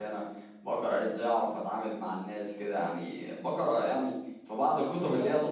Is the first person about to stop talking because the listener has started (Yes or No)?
Yes